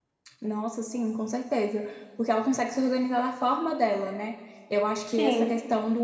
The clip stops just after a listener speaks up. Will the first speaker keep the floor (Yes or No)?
Yes